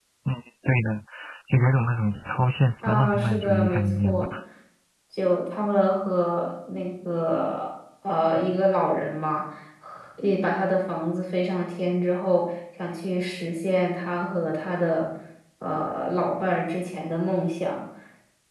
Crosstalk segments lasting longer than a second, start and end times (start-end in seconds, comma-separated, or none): 2.8-4.3